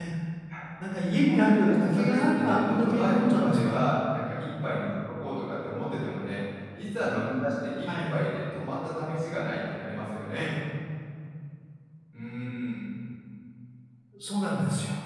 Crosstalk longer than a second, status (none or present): present